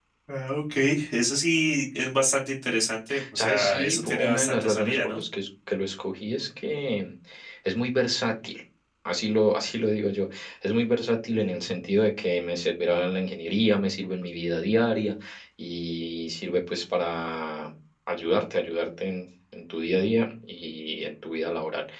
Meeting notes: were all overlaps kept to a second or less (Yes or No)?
No